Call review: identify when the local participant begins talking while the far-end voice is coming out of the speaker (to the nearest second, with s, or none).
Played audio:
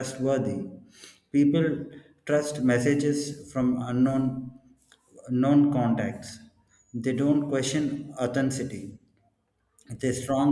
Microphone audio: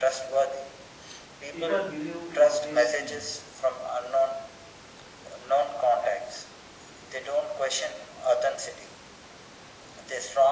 2 s